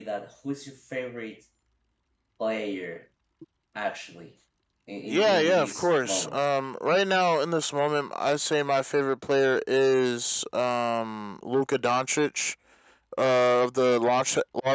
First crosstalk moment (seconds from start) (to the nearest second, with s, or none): 5 s